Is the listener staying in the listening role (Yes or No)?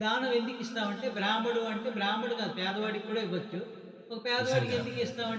Yes